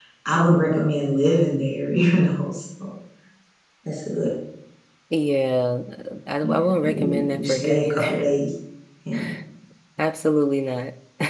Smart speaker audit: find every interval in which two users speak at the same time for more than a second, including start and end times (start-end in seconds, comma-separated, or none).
6.4-8.1